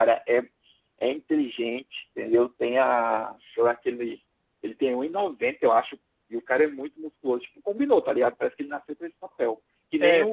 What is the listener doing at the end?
listening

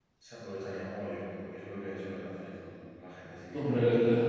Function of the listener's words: taking over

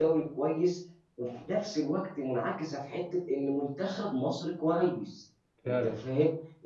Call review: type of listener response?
listening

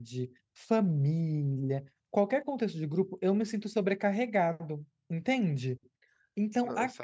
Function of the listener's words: listening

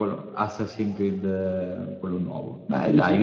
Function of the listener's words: taking over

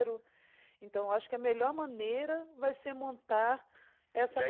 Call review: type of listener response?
taking over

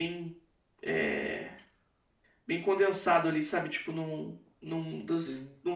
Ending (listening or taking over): listening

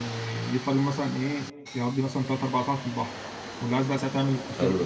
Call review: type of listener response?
taking over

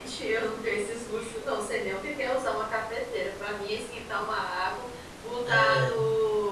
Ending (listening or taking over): listening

